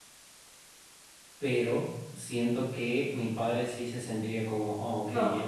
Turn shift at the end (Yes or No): Yes